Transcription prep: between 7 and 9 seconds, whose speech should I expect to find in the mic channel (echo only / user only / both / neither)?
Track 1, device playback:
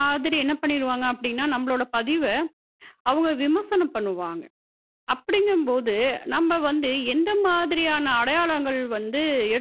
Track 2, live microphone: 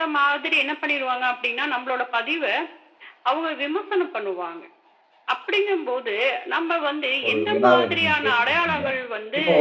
both